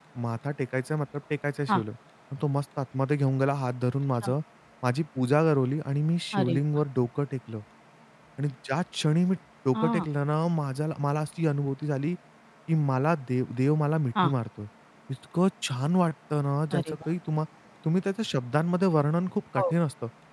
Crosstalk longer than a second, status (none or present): none